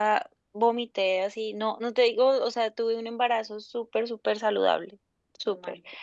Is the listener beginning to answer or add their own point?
No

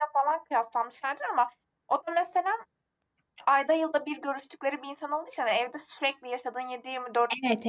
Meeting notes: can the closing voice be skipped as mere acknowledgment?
No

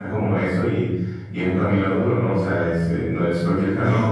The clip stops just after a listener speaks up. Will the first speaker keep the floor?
Yes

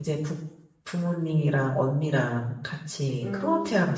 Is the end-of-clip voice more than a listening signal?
Yes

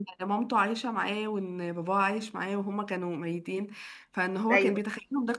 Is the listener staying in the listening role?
Yes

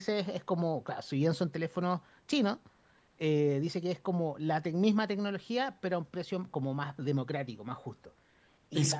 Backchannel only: No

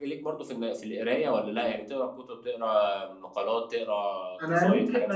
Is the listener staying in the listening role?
No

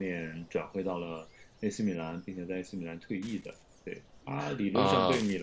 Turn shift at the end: No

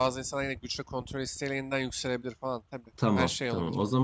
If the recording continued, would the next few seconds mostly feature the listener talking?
Yes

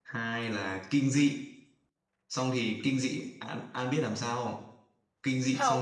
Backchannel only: Yes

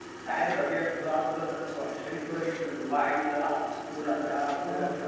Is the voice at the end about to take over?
Yes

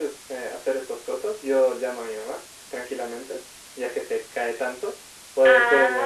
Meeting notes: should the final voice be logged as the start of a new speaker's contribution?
Yes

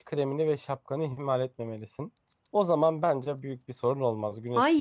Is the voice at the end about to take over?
Yes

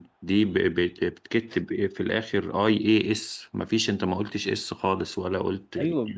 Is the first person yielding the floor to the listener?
Yes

